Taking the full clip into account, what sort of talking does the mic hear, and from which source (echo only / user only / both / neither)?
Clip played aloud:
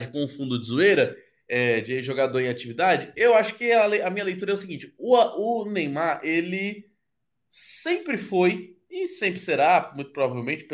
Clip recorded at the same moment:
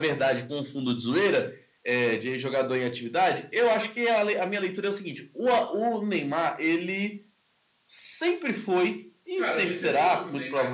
both